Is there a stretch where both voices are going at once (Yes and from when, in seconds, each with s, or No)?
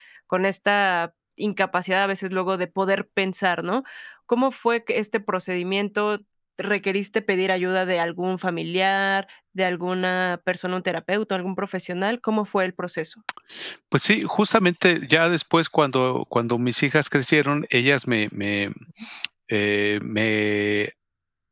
No